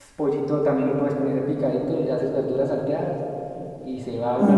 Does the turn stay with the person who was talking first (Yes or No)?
Yes